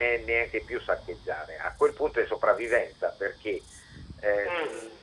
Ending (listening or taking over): listening